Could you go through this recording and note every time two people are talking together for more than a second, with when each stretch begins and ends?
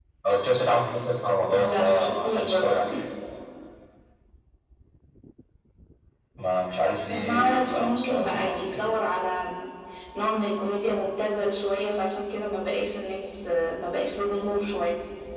1.5-2.8, 7.1-8.9

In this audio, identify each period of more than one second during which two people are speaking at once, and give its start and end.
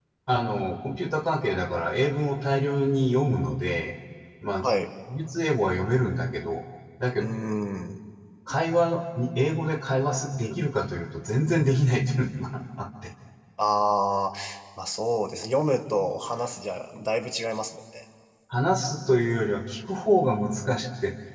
none

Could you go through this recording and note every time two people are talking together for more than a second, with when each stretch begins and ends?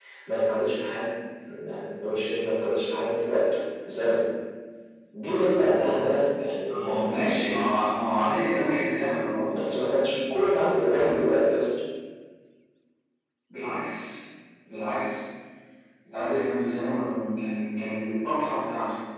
none

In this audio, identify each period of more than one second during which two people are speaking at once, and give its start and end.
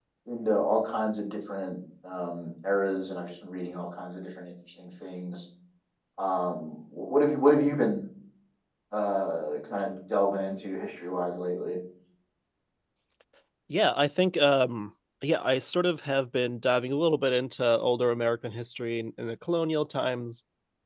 none

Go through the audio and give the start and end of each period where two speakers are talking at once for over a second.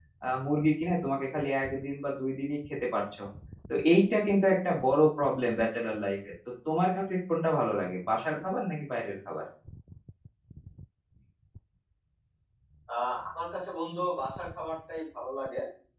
none

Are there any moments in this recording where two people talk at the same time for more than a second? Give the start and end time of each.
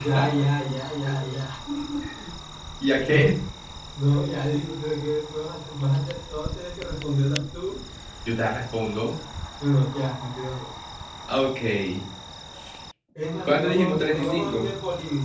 13.4-14.7

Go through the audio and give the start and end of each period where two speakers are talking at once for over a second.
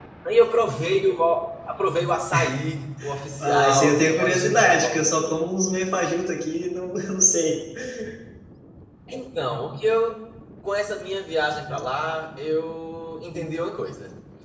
3.4-5.1

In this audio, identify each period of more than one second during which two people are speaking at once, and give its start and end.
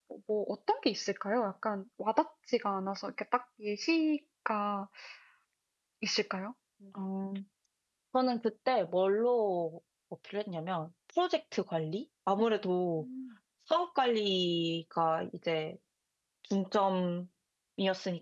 none

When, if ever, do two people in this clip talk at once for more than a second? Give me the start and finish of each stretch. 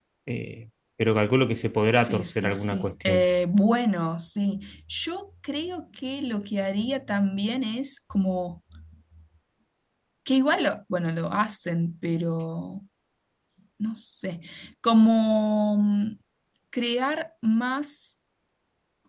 1.9-3.2

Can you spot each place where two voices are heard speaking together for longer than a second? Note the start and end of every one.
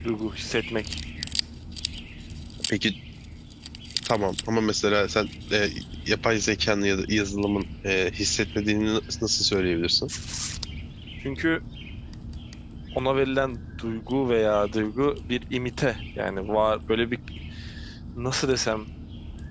none

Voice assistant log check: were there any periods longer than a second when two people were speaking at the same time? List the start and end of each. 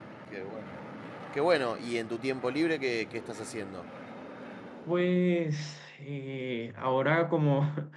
none

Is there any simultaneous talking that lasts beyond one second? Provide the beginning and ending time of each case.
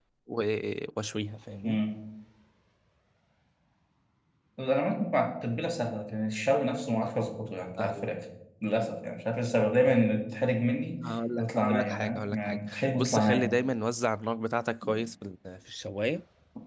11.4-13.5

